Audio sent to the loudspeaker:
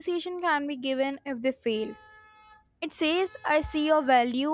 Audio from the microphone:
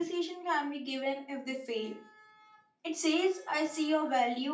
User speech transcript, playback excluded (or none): none